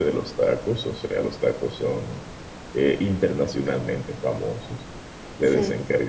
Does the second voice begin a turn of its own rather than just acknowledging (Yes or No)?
No